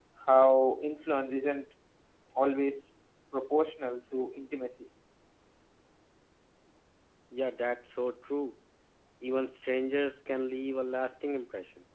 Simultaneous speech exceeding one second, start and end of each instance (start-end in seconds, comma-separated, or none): none